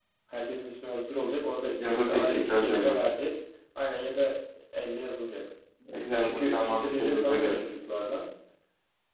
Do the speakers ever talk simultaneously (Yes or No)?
Yes